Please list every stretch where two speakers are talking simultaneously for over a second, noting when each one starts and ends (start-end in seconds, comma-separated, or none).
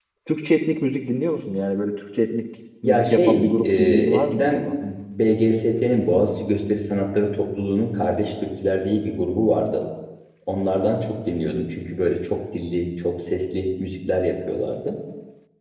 2.8-4.7